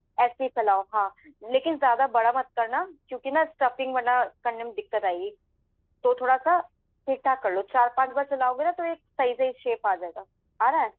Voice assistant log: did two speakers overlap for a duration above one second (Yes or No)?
No